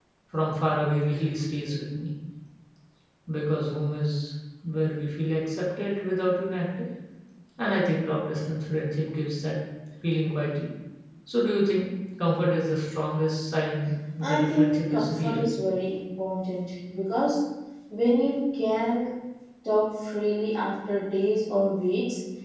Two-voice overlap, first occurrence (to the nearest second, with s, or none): 14 s